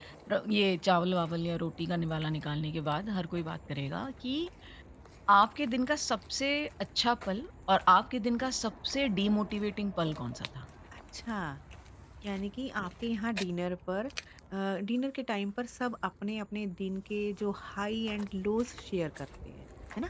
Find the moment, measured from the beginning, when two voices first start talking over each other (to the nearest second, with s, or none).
none